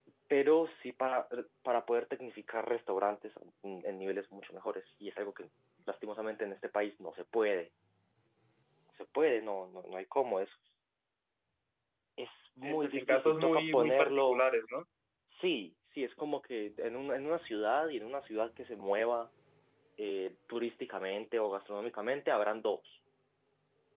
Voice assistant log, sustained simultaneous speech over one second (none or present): present